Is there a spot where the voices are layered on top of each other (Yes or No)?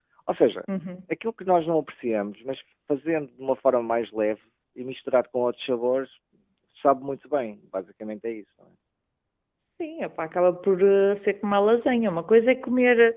No